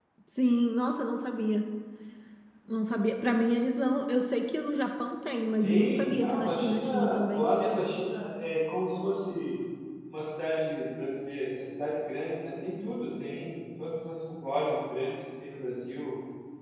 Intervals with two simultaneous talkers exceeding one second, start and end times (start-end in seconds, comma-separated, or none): 5.6-7.5